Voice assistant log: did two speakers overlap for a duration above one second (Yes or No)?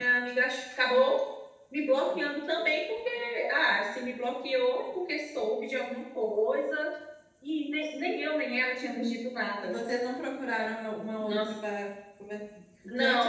No